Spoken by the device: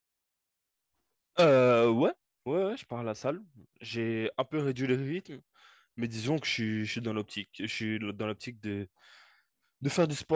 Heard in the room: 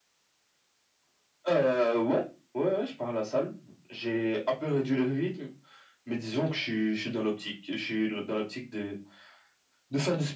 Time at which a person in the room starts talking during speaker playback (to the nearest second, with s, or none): none